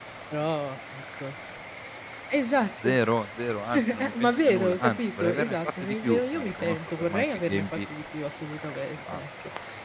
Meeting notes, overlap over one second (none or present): present